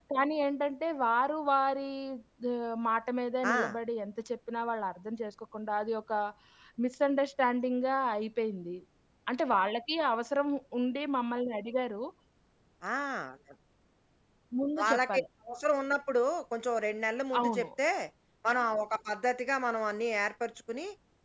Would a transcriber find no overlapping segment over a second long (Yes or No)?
Yes